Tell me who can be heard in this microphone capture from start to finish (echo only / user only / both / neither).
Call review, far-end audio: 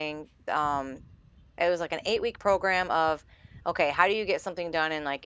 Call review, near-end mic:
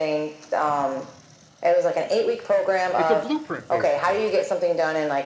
both